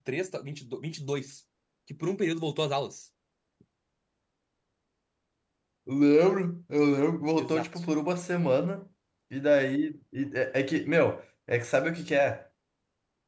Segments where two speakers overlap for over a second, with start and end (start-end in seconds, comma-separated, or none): none